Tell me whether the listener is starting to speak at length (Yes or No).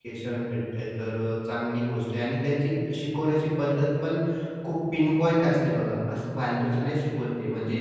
No